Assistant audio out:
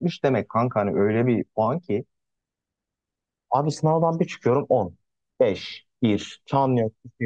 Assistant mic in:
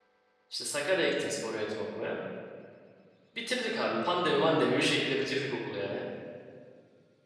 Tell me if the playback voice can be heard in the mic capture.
No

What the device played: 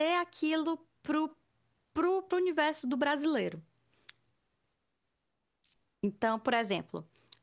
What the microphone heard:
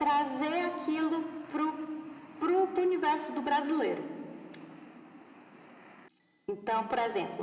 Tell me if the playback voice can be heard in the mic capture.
Yes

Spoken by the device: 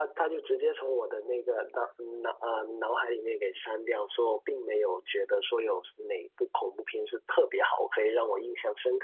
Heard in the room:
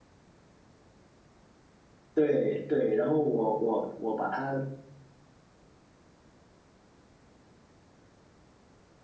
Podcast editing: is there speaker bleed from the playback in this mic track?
No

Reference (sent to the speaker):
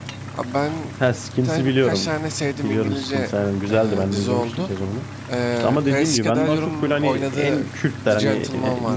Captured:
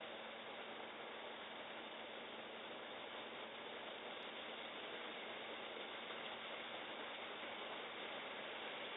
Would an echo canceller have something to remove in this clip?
No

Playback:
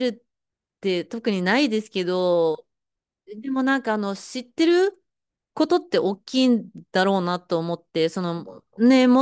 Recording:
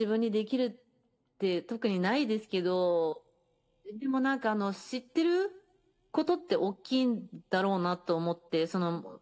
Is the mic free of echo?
No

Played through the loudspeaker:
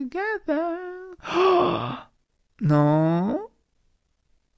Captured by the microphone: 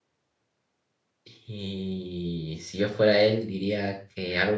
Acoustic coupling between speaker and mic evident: No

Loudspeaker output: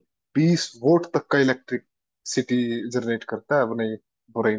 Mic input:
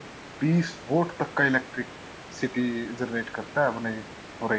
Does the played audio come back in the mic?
Yes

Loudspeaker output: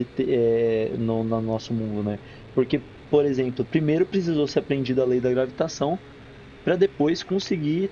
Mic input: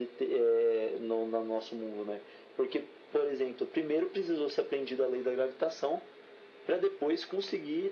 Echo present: Yes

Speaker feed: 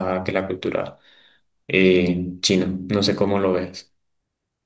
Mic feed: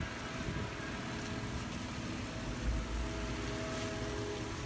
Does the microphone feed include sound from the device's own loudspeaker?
No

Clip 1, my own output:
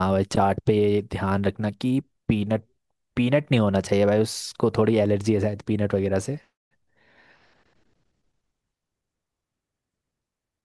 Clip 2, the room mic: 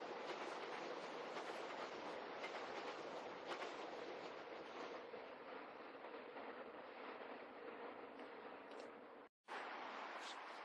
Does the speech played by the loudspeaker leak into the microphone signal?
No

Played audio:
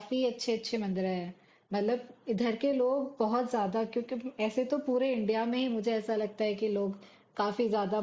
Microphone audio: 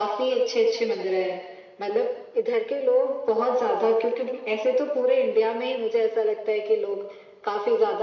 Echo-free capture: No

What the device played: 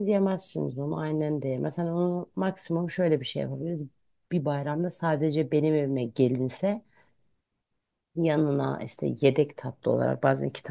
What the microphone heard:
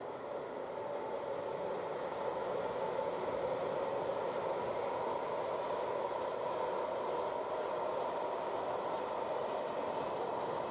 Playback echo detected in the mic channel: No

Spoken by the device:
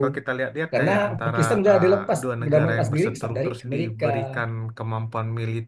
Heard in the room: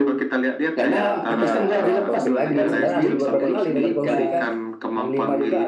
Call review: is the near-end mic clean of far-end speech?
No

